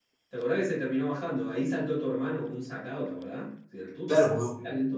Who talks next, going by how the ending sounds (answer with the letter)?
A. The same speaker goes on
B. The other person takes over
B